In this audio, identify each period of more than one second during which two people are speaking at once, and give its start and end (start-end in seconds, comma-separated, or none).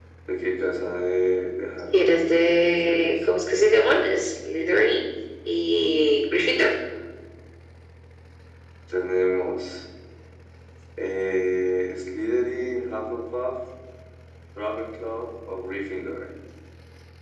1.9-3.1